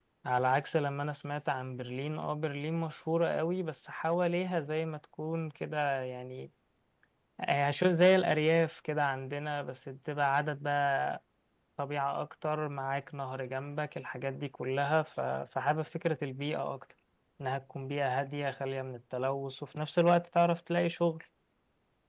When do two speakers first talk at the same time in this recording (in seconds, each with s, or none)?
none